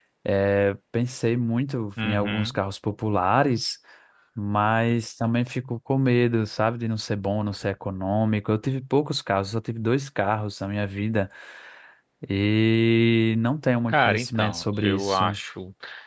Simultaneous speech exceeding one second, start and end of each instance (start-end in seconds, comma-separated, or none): 13.9-15.4